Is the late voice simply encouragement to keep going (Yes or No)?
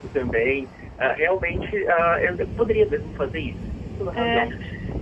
No